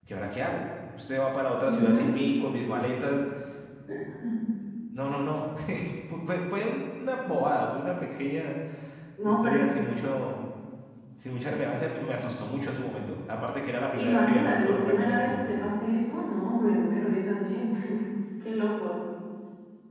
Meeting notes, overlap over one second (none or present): present